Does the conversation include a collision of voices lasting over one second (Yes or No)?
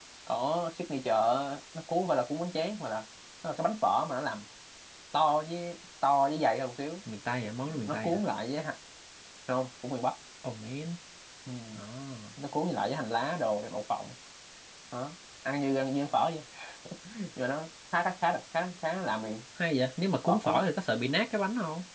No